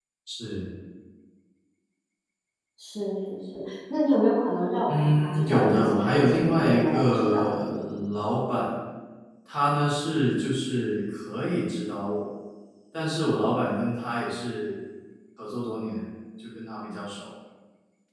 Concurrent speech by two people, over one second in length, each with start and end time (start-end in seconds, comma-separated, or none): 4.9-7.7